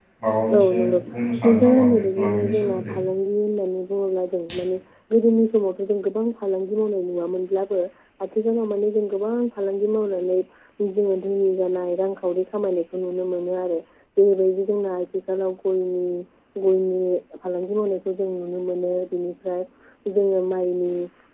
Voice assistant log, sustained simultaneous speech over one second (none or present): present